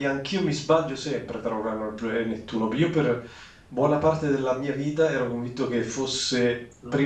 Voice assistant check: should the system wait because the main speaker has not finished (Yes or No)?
Yes